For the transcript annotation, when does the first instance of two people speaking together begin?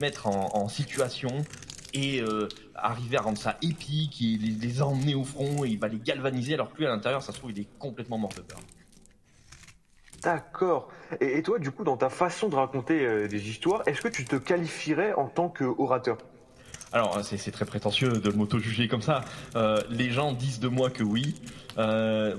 none

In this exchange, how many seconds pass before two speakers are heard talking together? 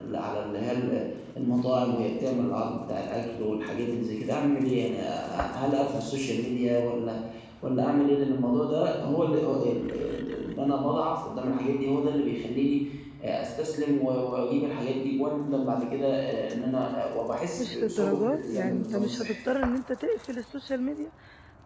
17.6 s

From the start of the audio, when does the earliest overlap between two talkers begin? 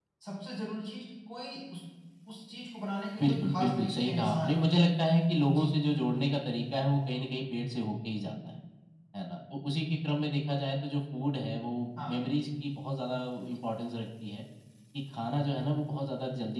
3.2 s

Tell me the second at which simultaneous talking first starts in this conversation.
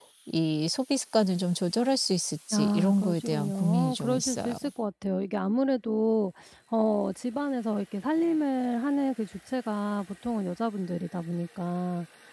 2.5 s

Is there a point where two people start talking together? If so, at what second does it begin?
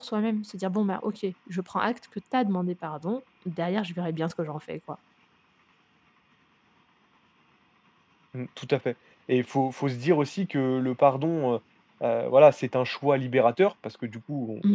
none

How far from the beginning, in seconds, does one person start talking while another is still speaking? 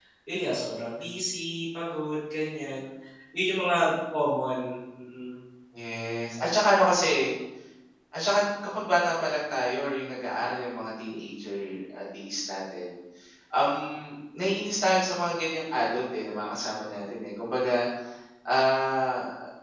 none

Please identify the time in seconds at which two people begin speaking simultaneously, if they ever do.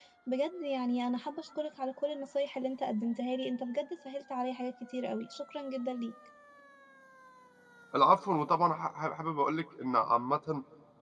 none

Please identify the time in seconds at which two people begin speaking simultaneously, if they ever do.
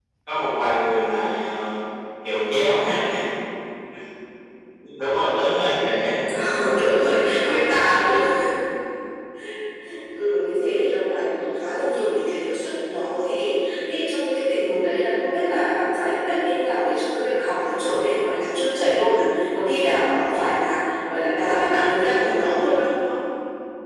21.7 s

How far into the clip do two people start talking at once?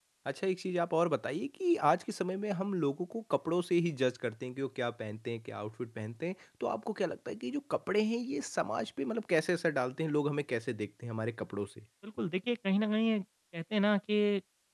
none

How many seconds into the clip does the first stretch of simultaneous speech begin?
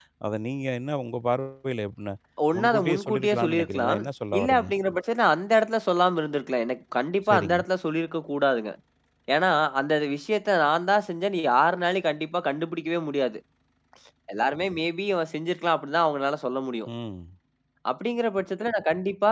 2.6 s

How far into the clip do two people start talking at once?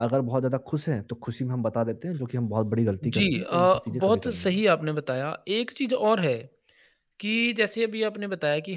3.0 s

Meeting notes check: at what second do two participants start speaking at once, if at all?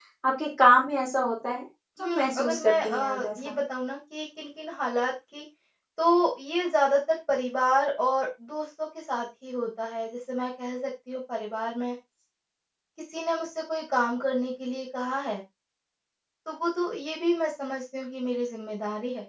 2.0 s

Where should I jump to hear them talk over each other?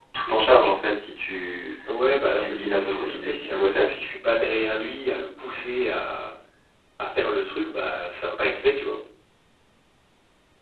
2.2 s

